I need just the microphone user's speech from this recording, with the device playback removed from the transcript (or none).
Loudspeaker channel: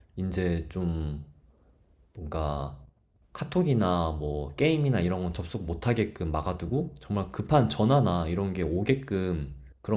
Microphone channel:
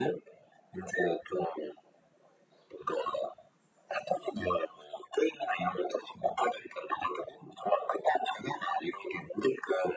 none